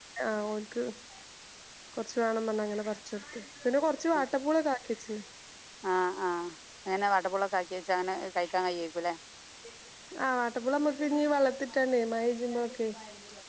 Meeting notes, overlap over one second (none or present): none